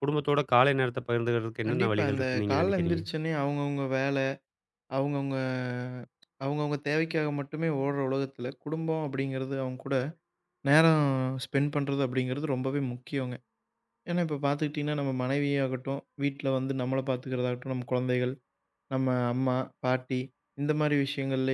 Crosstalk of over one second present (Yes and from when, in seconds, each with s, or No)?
Yes, from 1.7 s